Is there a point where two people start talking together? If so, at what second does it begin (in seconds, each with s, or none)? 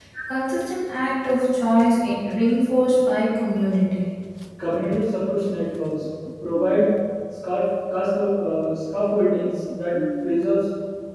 none